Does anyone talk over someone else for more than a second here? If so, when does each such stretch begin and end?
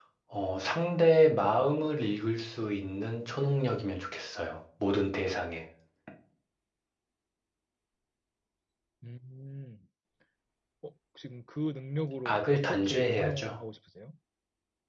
12.2-13.6

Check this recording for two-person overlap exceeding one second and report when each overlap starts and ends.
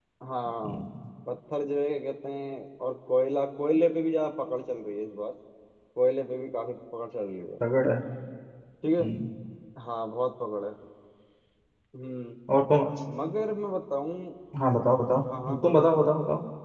none

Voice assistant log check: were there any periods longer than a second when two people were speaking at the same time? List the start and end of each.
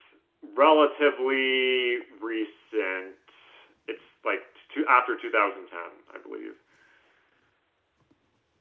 none

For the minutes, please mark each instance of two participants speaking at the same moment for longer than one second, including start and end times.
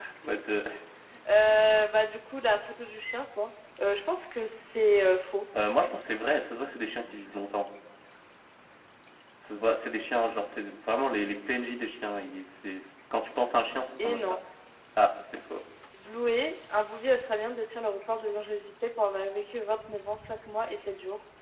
none

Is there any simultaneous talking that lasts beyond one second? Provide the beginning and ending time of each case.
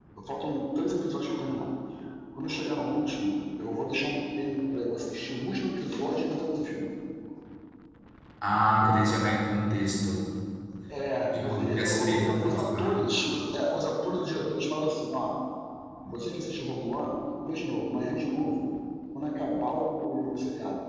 11.3-12.9

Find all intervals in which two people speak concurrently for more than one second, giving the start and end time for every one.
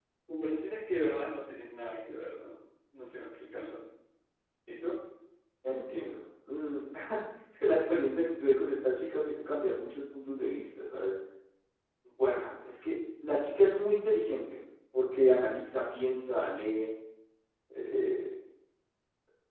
none

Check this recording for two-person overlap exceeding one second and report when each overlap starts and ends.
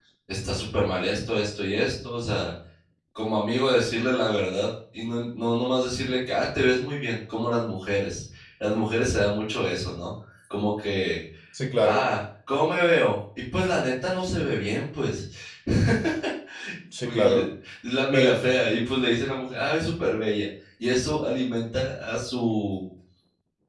none

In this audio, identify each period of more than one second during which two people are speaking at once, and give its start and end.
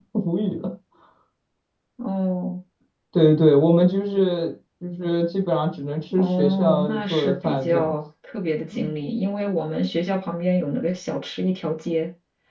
6.2-8.0

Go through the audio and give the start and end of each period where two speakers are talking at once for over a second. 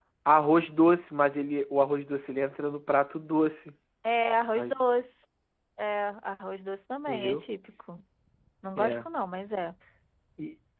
none

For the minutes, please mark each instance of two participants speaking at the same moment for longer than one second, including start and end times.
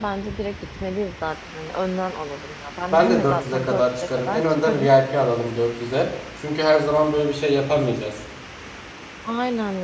2.9-4.9

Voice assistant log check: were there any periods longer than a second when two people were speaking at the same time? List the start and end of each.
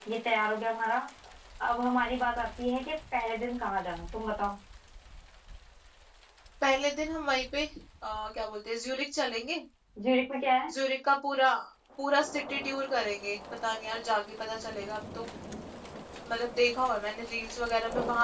none

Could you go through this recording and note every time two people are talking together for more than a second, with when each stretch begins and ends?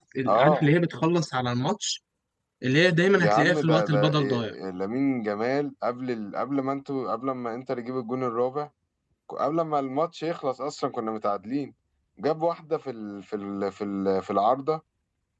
3.2-4.5

